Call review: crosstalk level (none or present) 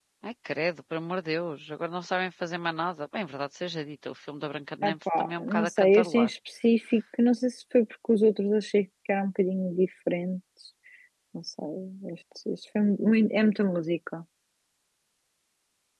present